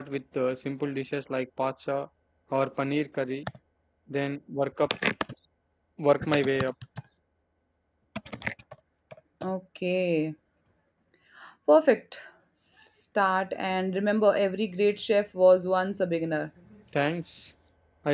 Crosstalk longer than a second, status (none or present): none